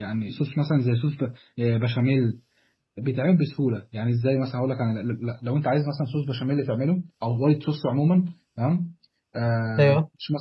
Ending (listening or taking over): listening